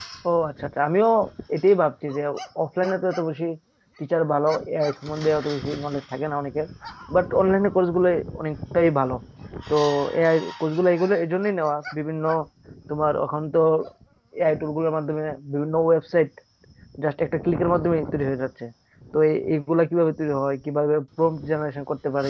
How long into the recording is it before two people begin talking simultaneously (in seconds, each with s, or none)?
none